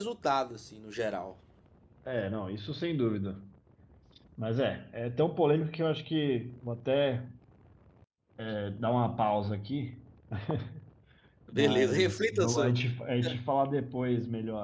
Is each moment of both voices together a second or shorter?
No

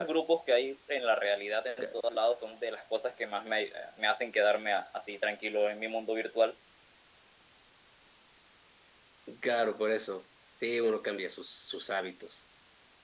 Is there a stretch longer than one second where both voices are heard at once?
No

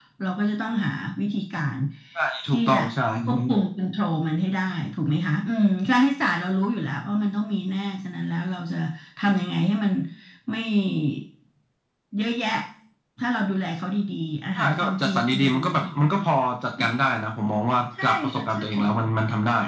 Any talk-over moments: Yes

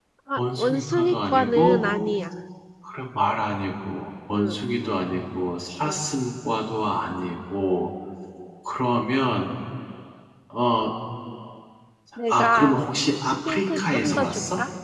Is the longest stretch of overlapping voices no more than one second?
No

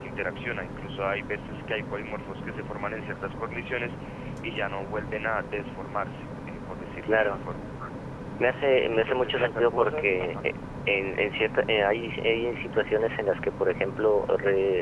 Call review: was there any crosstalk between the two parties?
Yes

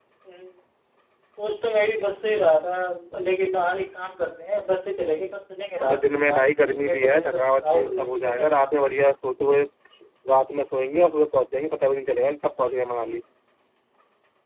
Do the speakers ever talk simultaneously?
Yes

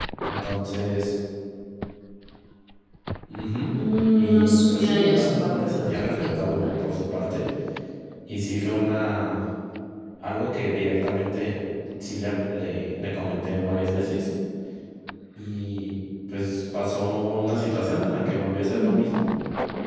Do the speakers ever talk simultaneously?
Yes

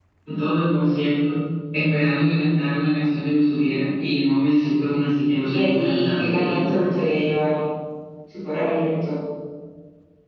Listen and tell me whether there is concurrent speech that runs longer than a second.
Yes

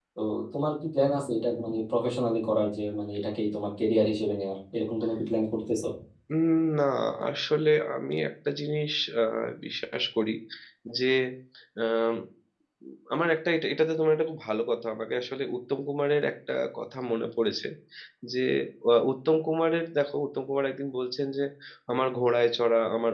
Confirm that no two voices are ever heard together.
Yes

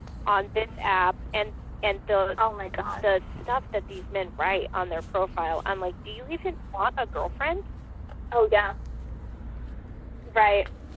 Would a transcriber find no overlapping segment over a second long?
Yes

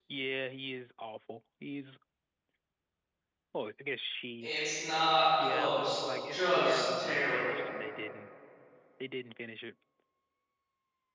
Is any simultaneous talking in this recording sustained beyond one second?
Yes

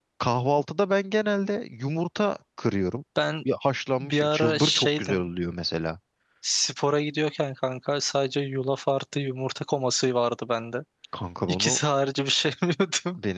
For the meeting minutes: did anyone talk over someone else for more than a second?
Yes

